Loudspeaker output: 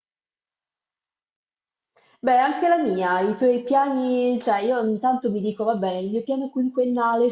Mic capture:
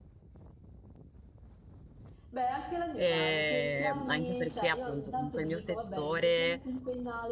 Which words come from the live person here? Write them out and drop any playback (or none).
E anche perché appunto comunque il mio settore